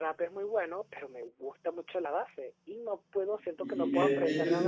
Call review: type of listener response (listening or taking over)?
taking over